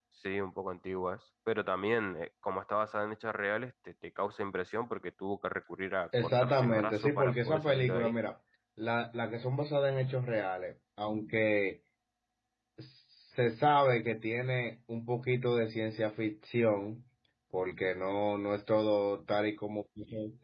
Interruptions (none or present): present